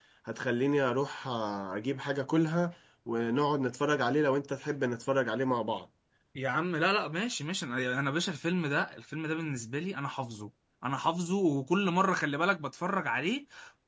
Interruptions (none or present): none